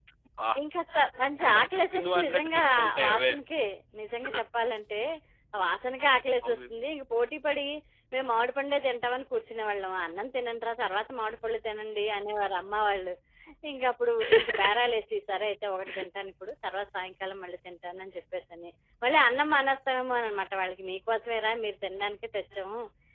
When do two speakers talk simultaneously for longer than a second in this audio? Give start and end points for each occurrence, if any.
1.6-3.3

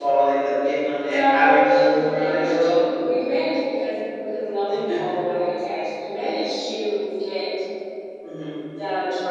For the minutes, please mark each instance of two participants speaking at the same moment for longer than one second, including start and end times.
1.1-2.8

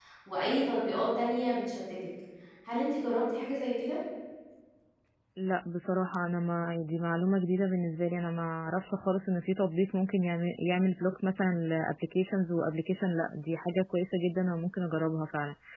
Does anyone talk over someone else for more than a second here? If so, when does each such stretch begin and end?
none

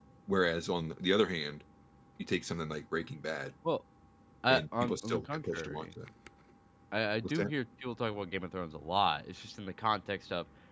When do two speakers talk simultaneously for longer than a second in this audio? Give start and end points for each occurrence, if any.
4.5-5.9

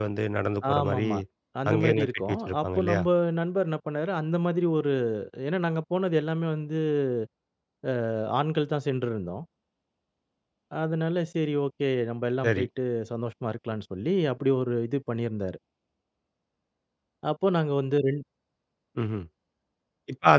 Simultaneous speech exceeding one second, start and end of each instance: 1.7-3.0

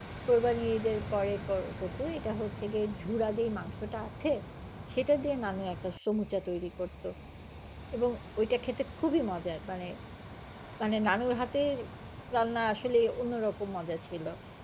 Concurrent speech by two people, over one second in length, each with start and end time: none

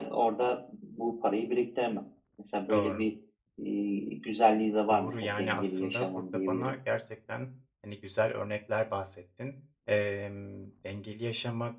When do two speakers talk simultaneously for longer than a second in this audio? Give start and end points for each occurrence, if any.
4.9-6.7

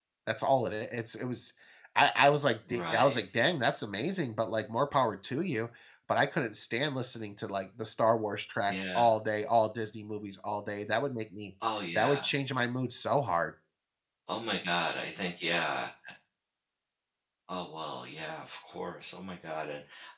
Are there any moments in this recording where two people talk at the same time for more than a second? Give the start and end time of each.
none

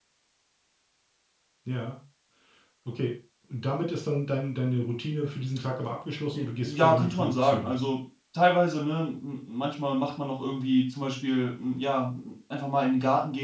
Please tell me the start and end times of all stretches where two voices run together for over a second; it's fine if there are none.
6.3-7.7

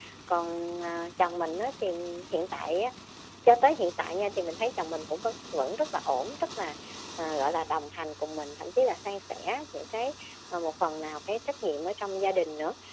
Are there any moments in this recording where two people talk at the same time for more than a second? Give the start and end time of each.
none

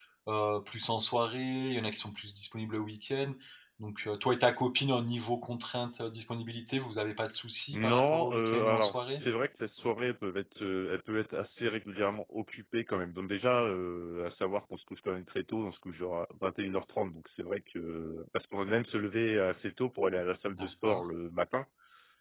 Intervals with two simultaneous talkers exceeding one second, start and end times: 7.7-9.2

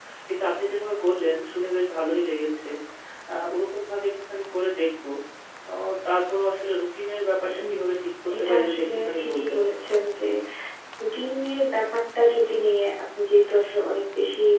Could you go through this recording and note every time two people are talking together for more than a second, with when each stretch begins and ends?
8.4-9.6

